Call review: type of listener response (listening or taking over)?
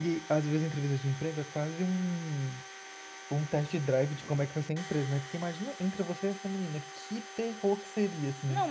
taking over